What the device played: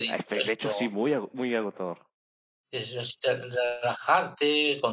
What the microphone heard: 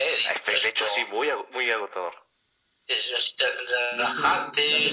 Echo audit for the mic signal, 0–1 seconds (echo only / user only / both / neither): echo only